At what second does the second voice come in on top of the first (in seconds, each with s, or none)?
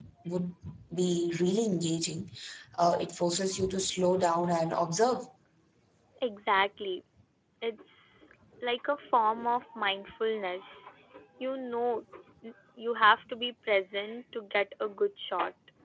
none